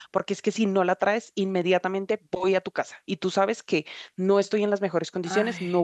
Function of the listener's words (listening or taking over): listening